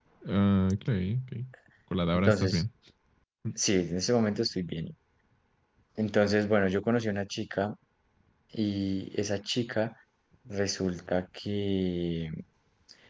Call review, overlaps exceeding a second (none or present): none